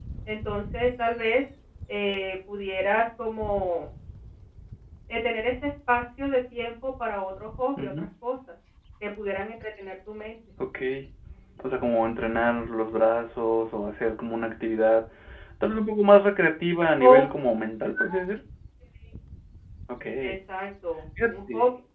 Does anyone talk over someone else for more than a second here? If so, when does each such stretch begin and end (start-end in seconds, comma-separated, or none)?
none